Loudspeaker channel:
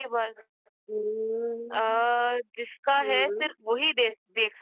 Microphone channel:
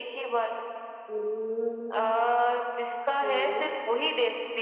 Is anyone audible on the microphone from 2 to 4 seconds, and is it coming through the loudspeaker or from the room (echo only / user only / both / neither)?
echo only